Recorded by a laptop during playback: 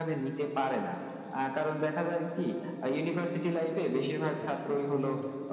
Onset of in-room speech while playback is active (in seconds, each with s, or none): 3.9 s